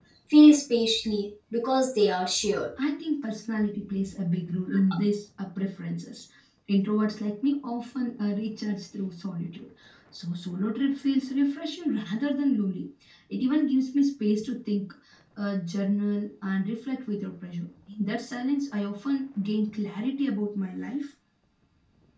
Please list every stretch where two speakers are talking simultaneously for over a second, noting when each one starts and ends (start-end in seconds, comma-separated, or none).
none